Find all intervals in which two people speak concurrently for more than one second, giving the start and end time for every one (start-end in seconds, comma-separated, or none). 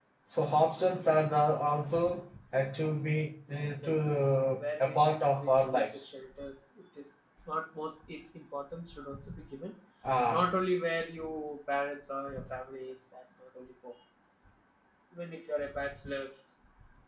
4.6-6.1